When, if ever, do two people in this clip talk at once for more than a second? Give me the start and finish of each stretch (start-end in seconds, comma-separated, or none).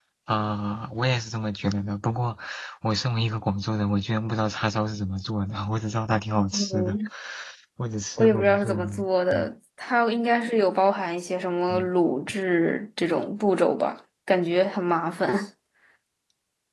8.2-9.5